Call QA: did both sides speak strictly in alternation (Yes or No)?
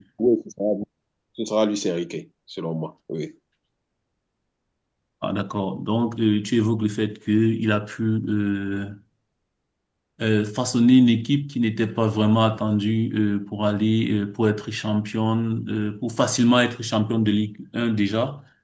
Yes